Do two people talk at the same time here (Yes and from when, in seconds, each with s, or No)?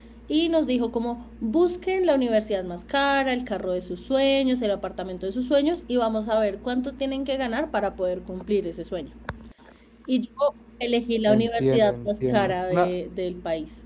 Yes, from 11.3 s